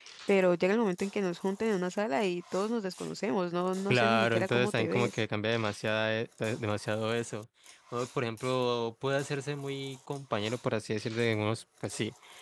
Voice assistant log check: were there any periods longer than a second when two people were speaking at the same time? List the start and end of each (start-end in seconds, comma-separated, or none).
3.9-5.2